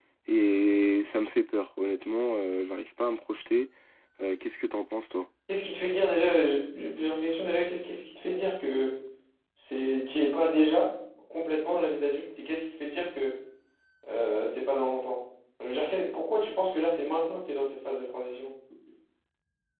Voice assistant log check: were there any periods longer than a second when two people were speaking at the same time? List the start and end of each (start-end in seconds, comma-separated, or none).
none